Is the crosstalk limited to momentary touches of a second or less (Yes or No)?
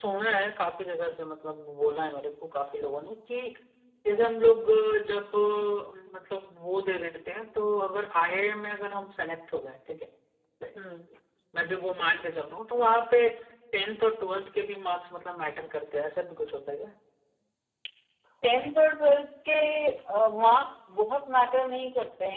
Yes